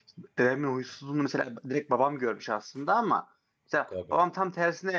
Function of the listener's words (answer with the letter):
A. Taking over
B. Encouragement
B